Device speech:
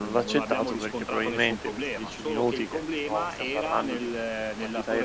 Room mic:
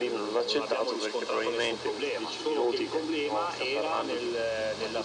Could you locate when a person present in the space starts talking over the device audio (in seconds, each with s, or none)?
none